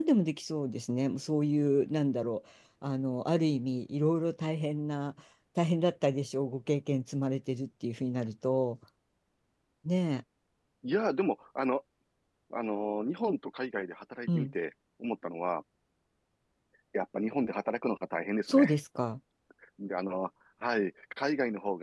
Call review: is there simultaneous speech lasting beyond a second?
No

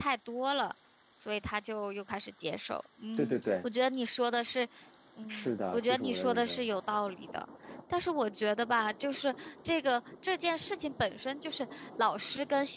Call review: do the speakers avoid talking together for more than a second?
No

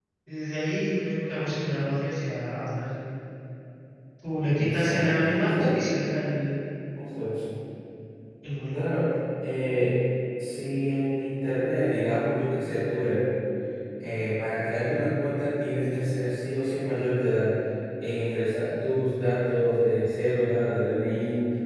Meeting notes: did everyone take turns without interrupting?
No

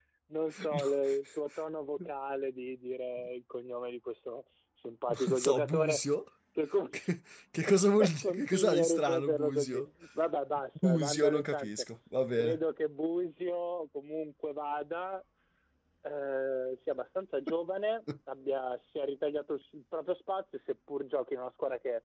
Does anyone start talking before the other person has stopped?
Yes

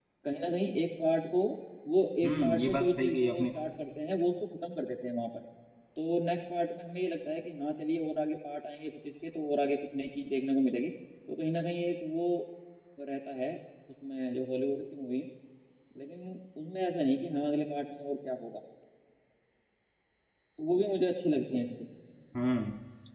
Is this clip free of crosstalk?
No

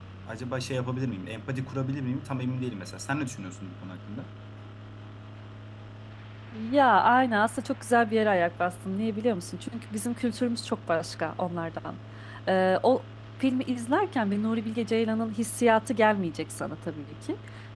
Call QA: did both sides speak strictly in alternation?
Yes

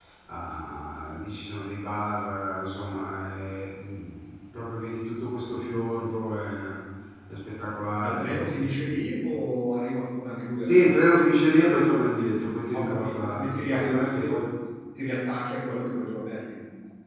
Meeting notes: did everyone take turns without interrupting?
No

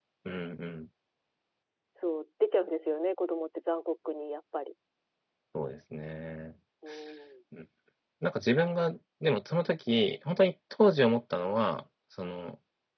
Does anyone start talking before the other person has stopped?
No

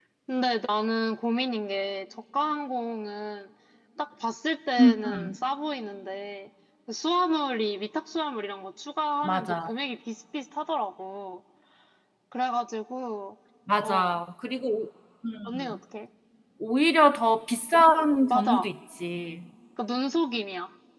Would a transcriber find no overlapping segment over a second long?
Yes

